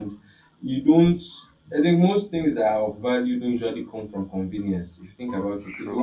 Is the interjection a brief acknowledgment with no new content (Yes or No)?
Yes